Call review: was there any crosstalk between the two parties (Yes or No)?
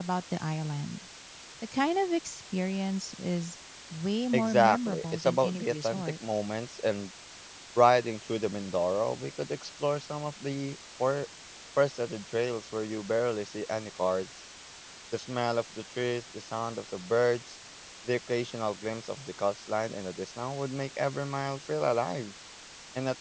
Yes